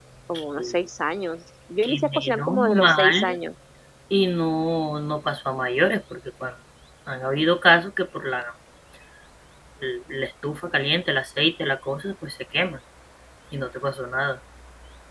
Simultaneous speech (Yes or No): Yes